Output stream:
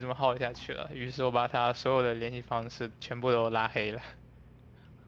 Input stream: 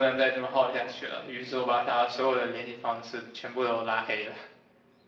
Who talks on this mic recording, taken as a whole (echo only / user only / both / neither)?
echo only